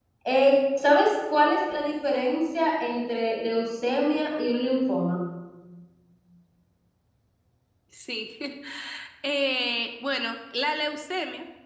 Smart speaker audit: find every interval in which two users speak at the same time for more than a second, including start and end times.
none

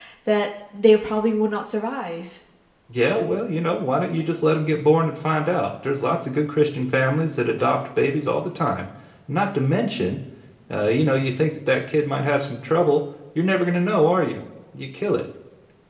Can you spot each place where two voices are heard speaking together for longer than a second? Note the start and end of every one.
none

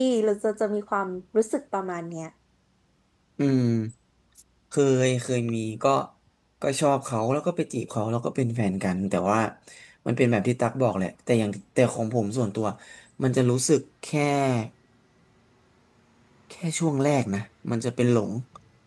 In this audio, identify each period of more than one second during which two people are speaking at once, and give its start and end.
none

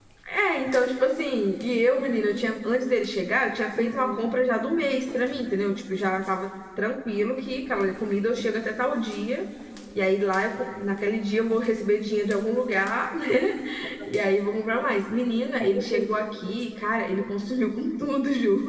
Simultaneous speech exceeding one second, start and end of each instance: none

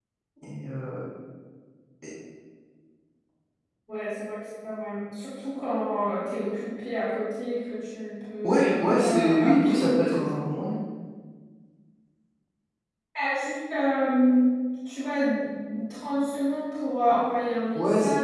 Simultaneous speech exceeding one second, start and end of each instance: 8.4-10.3

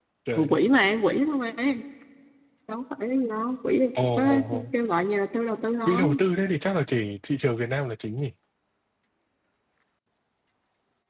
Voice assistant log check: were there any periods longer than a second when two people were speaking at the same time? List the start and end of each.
none

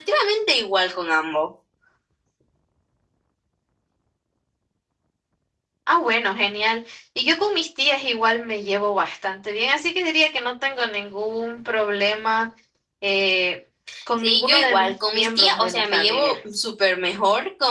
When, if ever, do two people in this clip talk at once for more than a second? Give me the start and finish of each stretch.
14.2-16.4

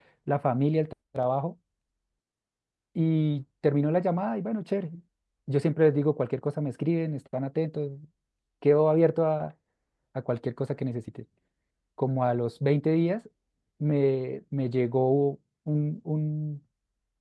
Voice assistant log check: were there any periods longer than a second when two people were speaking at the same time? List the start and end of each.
none

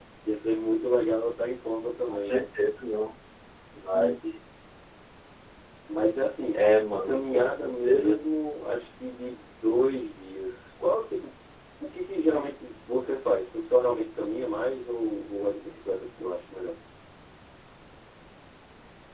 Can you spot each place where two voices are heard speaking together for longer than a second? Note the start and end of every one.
6.5-8.2

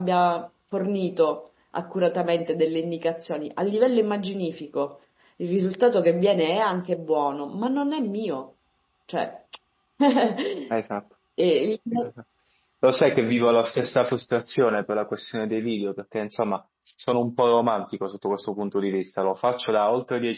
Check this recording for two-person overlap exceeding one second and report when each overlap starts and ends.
none

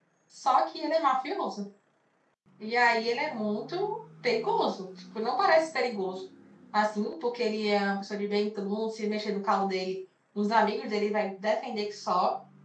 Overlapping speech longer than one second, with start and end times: none

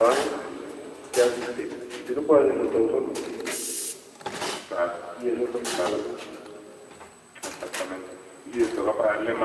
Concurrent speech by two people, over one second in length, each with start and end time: none

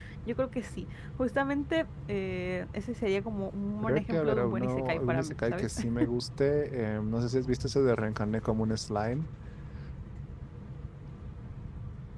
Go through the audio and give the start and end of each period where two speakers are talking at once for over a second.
3.8-5.7

